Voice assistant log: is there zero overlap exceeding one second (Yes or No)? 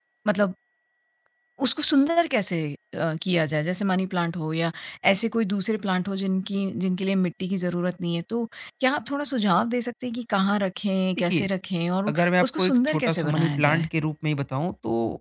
No